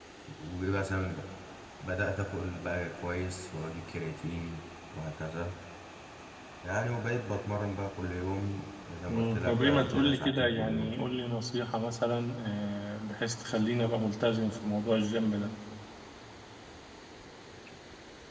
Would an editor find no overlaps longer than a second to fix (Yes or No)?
No